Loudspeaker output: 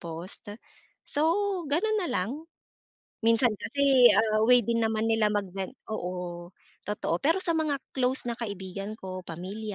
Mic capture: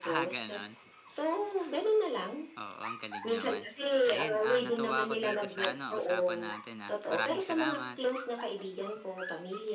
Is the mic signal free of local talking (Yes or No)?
No